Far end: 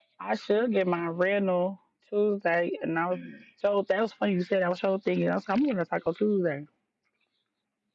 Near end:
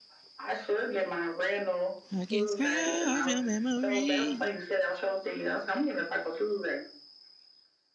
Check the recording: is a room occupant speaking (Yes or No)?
Yes